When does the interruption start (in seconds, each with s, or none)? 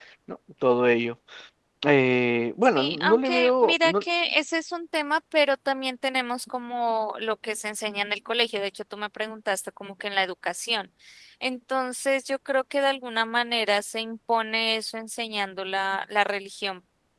2.8 s